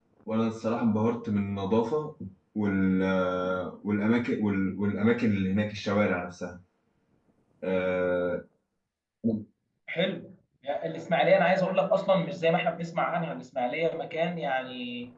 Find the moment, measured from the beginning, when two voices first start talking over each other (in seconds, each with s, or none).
none